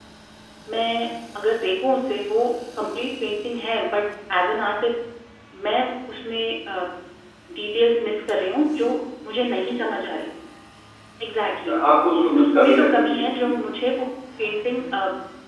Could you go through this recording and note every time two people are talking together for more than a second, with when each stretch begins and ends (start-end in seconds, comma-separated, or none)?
12.2-13.5